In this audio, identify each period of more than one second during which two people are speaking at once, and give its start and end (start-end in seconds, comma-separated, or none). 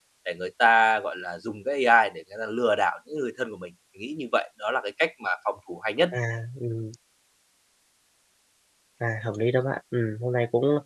none